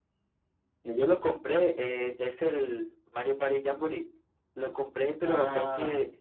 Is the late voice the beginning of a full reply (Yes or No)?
No